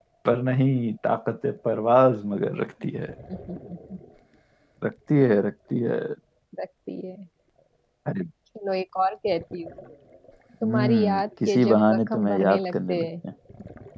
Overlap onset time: 10.6 s

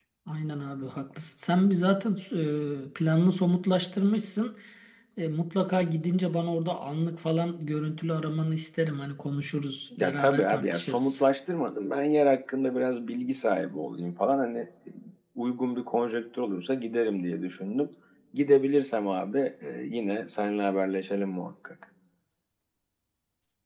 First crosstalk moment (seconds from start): 9.9 s

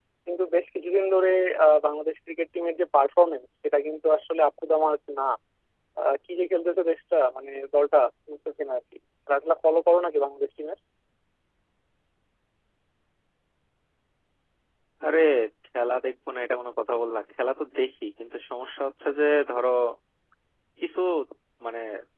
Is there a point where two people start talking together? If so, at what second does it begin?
none

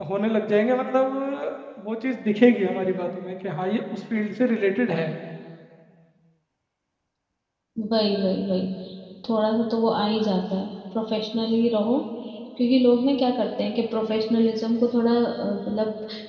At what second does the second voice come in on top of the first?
none

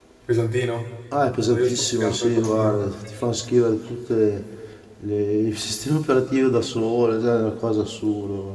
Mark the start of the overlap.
1.5 s

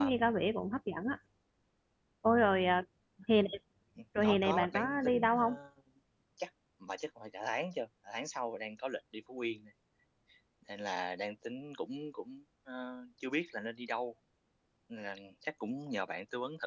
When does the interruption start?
4.2 s

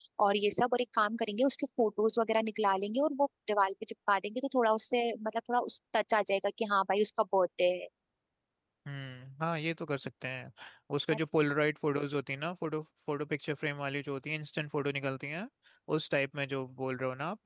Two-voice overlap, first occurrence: none

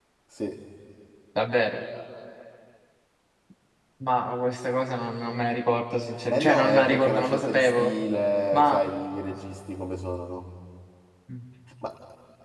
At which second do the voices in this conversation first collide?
6.3 s

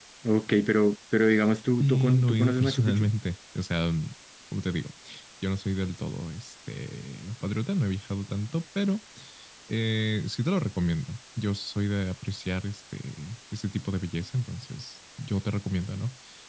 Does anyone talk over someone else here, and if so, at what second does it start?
1.8 s

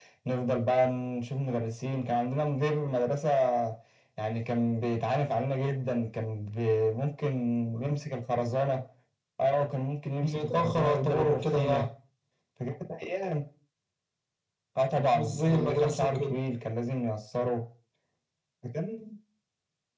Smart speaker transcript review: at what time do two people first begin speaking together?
10.2 s

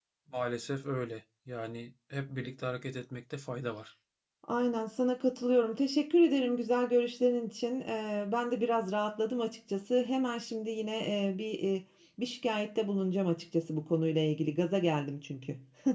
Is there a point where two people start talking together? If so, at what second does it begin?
none

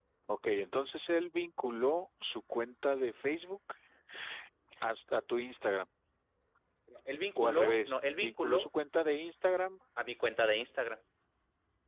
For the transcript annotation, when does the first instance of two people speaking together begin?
7.4 s

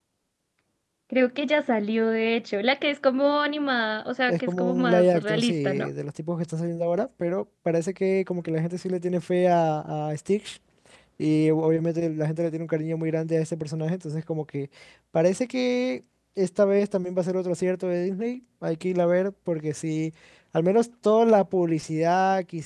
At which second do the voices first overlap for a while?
4.3 s

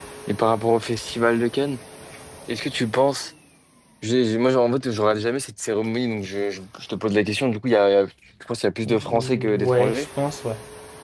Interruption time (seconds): 8.8 s

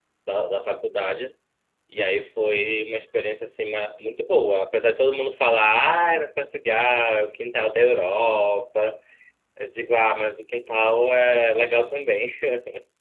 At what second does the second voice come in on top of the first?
none

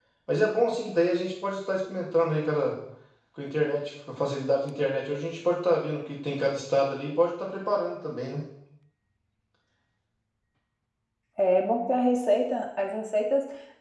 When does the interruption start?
none

